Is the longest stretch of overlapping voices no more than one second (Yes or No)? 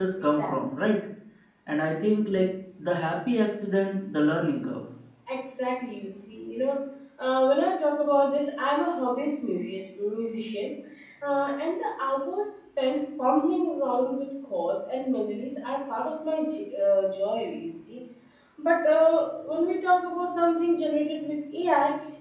Yes